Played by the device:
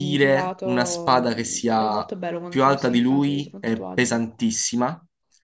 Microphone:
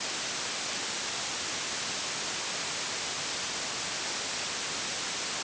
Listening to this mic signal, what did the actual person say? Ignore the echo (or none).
none